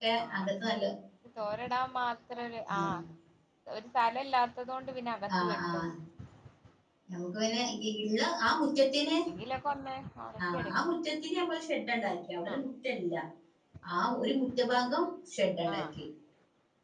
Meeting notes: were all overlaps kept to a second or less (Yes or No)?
Yes